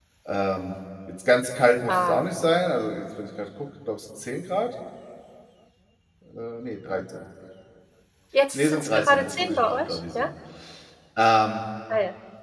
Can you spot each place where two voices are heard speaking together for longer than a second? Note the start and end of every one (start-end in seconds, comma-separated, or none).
8.5-10.3